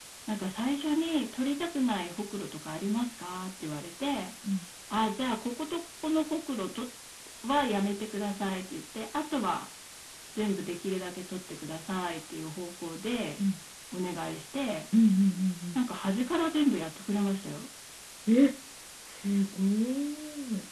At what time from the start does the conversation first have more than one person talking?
none

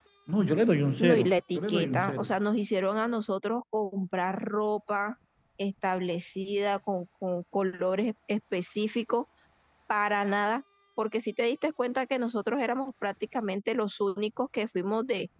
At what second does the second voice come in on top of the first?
1.0 s

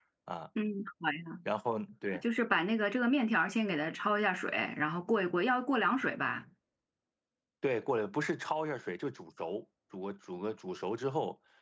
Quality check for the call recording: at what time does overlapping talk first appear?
none

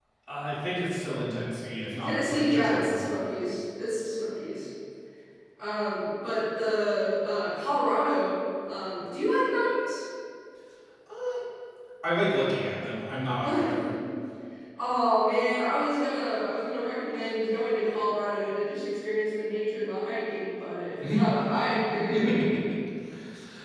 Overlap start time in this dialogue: 2.0 s

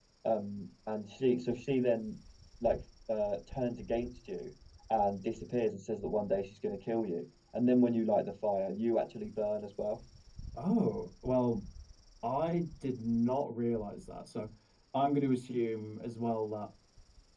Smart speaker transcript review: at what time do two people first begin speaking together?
none

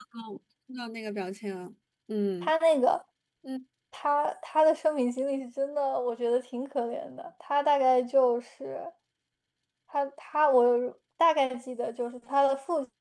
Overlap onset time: none

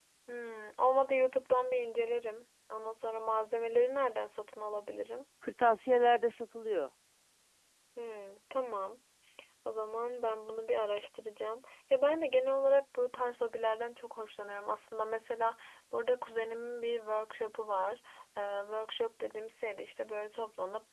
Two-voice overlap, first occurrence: none

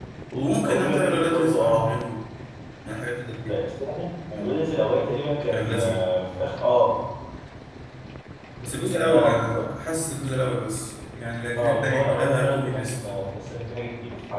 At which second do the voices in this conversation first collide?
0.6 s

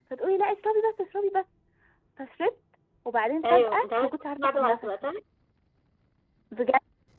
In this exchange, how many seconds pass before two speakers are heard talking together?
3.4 s

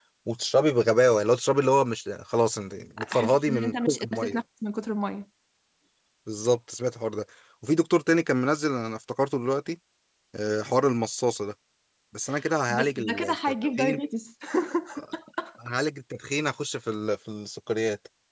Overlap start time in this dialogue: 3.1 s

